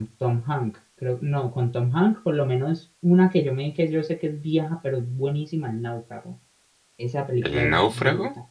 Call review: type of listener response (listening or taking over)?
listening